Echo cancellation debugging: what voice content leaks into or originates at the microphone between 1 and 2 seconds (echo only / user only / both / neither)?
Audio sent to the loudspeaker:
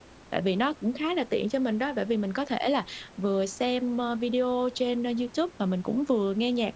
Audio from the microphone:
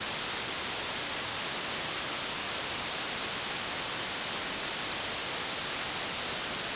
neither